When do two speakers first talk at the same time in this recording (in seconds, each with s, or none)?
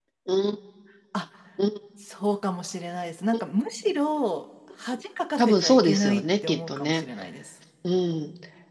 5.4 s